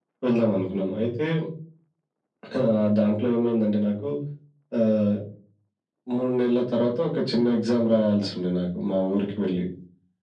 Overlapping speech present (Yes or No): No